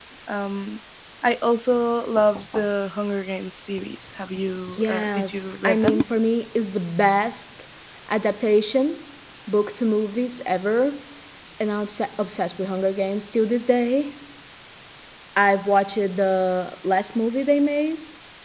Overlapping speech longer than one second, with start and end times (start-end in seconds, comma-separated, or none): 4.7-6.0